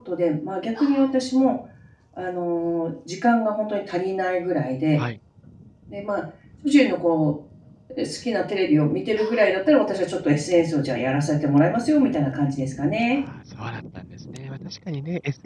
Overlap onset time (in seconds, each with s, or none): none